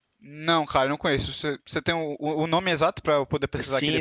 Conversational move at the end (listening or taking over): taking over